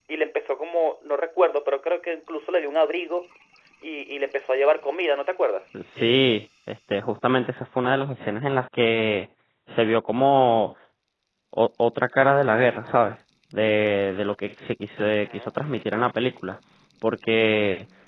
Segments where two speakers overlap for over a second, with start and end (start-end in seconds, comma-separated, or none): none